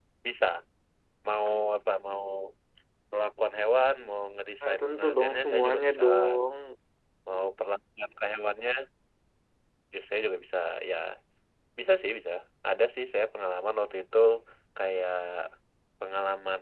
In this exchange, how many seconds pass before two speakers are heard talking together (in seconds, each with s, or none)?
4.6 s